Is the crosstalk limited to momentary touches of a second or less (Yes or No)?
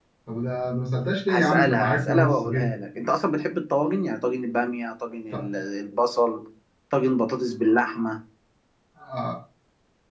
No